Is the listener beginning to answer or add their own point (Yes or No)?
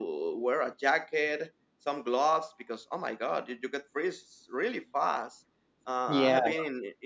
No